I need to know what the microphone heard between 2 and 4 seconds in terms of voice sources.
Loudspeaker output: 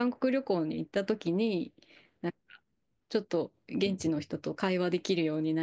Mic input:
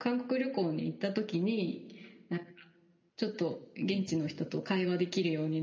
echo only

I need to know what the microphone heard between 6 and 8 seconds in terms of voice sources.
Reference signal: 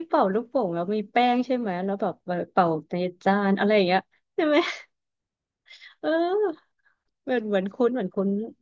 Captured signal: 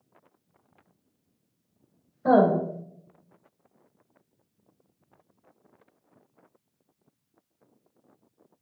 neither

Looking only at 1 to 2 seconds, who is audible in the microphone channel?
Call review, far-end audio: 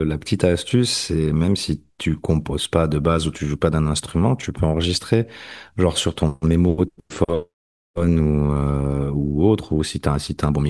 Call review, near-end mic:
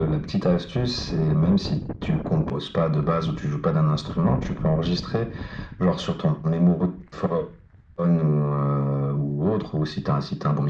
echo only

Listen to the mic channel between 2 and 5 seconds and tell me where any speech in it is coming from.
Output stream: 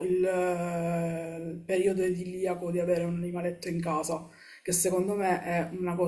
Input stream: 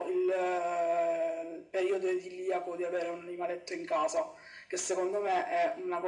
echo only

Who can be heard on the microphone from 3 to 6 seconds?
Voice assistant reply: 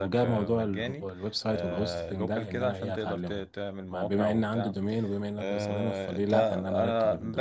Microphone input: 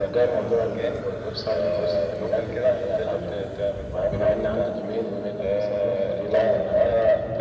echo only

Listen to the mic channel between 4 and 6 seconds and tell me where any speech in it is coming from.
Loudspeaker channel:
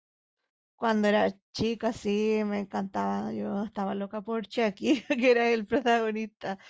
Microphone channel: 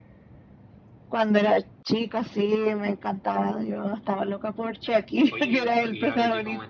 both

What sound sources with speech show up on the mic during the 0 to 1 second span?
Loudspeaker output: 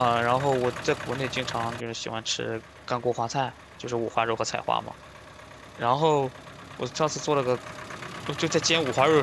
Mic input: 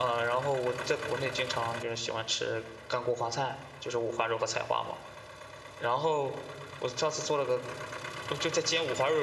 echo only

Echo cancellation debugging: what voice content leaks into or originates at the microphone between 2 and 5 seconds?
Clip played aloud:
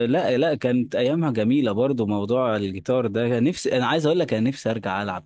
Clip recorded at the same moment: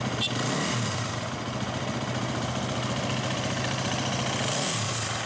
neither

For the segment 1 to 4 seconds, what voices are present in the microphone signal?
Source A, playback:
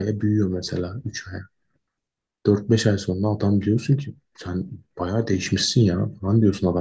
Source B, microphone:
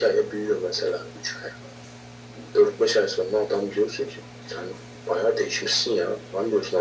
echo only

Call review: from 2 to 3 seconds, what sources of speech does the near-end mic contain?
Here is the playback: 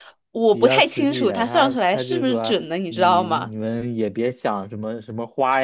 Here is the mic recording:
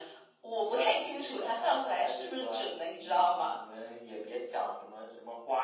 echo only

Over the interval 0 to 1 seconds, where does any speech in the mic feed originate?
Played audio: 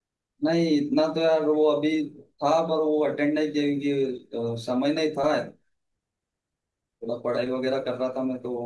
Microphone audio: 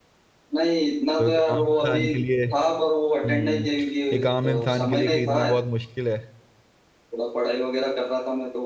echo only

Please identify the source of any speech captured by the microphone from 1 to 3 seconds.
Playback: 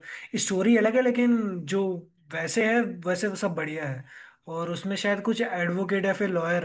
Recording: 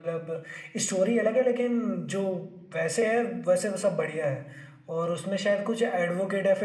echo only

